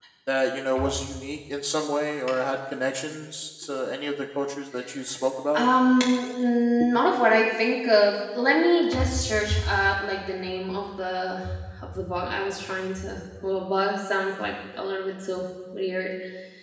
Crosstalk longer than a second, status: none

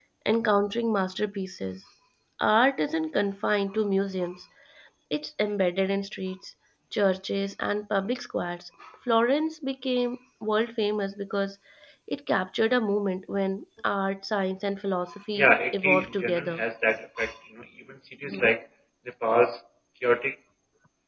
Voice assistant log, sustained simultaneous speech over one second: present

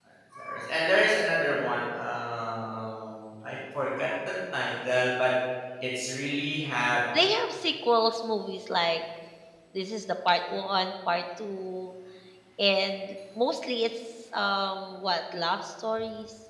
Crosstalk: none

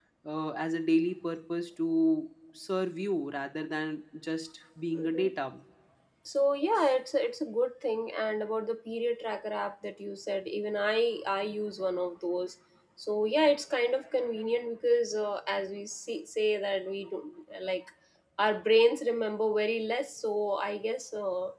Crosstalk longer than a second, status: none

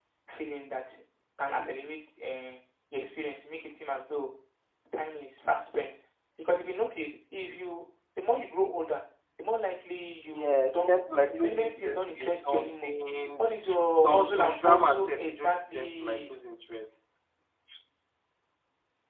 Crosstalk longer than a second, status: present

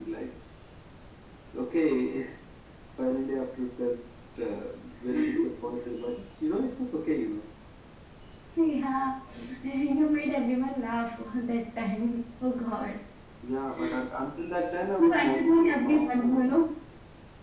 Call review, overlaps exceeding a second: present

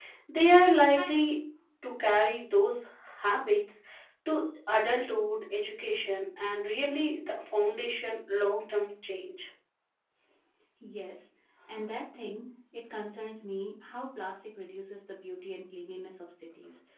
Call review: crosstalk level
none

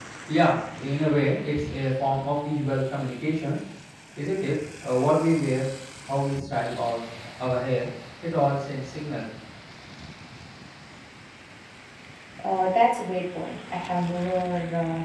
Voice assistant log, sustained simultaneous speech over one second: none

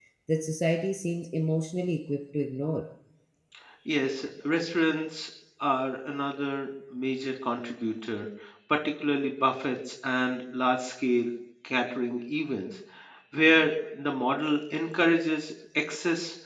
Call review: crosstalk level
none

